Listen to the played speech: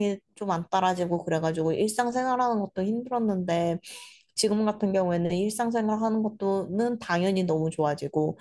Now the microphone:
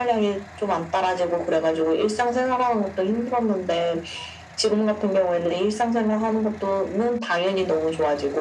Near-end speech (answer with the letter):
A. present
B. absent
B